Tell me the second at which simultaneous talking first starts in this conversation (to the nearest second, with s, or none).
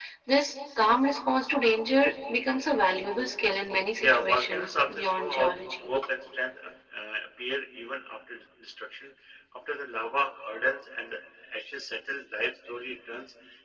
4 s